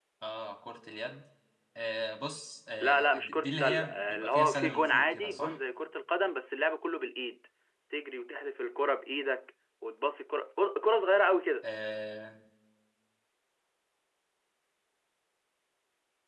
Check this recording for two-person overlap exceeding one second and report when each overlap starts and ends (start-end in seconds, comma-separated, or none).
2.8-5.6